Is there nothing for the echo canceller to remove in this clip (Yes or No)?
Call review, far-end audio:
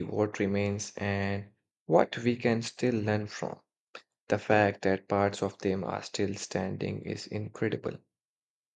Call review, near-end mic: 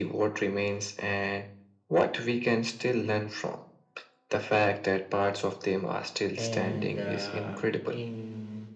No